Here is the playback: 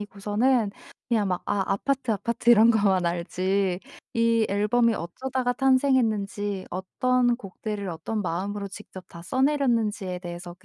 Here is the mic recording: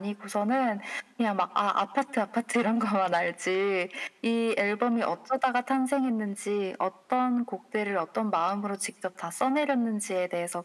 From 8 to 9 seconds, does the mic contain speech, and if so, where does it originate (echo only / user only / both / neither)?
echo only